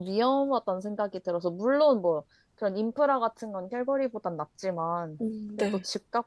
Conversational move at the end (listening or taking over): listening